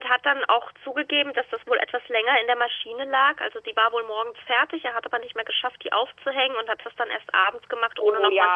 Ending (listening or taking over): taking over